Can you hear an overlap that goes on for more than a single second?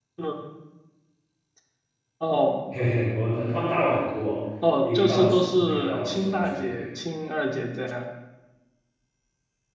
Yes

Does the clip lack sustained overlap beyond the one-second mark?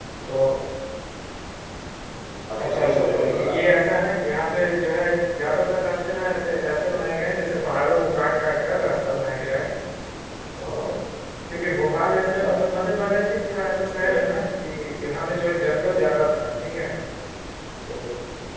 No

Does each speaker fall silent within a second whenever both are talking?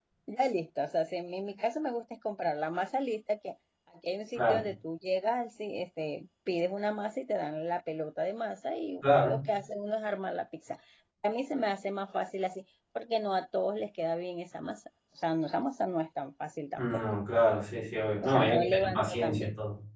No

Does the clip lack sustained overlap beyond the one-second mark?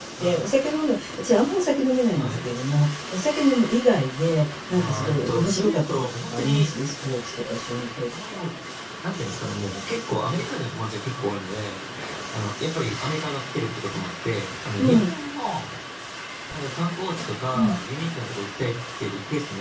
No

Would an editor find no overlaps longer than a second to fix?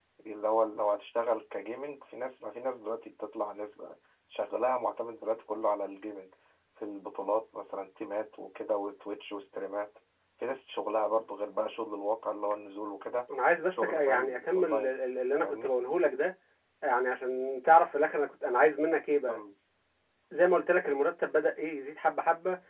No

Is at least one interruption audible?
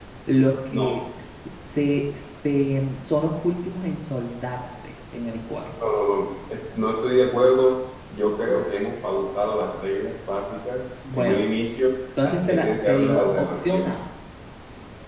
Yes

